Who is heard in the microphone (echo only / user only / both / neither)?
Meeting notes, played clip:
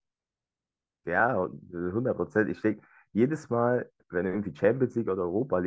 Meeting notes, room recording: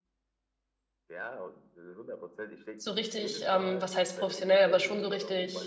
both